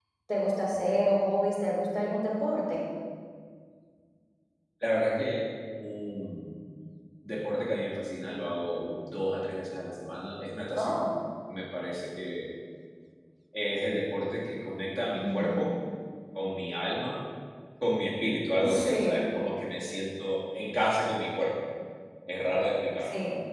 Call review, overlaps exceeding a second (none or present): none